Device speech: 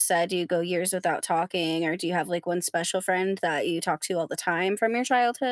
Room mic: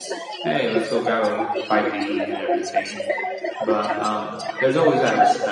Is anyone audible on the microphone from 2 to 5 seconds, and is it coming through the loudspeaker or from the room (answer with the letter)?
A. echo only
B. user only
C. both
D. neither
C